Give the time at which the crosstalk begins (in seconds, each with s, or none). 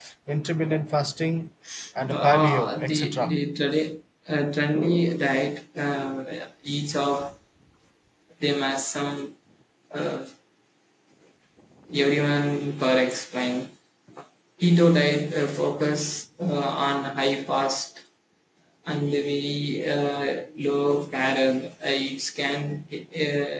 2.1 s